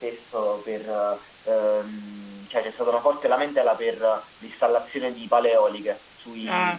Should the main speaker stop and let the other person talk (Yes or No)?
No